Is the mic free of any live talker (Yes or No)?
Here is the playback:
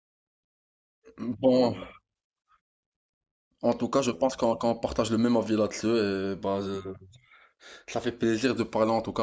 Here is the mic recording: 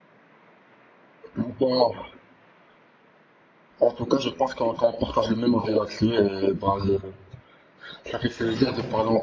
No